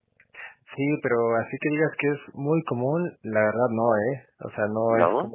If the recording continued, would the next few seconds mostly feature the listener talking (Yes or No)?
No